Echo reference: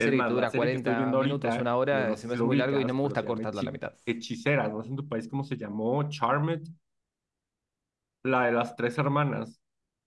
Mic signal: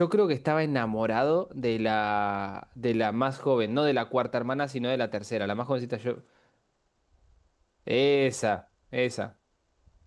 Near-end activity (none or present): present